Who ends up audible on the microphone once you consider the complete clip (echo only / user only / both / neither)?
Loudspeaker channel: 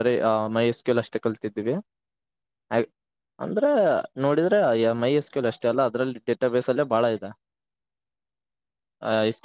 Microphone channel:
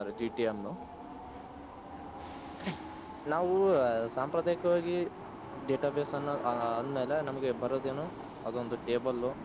user only